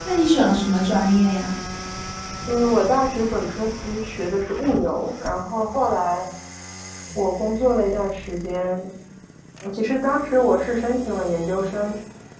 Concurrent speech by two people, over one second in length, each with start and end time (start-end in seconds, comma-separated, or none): none